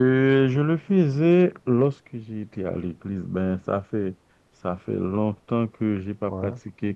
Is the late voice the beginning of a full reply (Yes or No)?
No